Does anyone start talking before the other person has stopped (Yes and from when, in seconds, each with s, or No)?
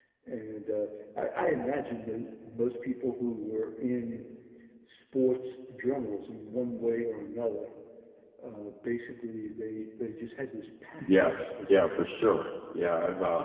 Yes, from 11.0 s